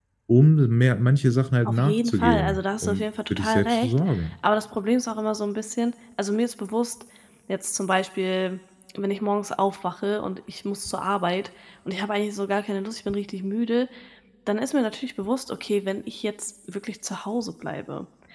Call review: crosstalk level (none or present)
present